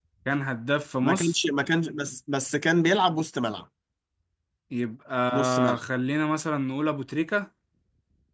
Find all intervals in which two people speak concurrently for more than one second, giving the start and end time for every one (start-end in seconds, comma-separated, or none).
none